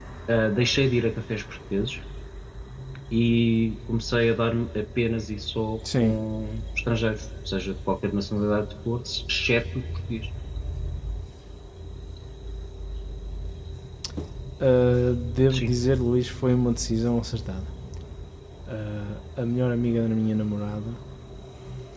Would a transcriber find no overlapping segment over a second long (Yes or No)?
Yes